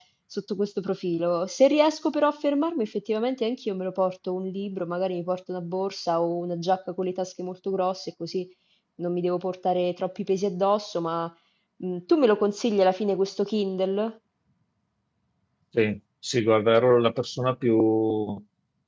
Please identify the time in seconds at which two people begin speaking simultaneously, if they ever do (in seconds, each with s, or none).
none